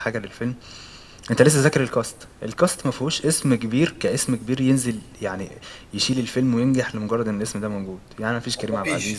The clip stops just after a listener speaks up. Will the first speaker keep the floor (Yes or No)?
Yes